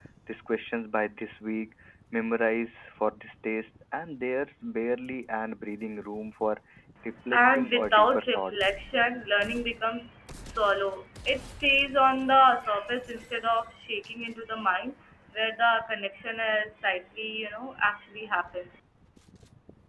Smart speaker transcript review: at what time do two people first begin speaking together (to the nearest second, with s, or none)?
7 s